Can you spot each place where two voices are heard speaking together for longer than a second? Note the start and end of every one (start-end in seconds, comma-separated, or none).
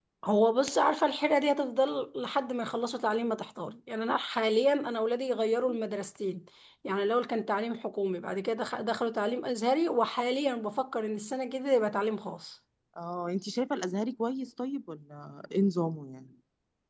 none